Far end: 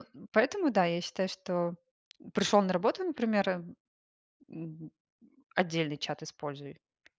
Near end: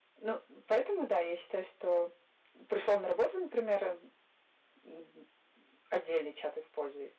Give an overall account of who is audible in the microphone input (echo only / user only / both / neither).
echo only